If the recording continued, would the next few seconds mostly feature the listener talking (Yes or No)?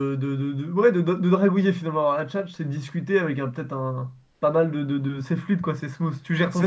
Yes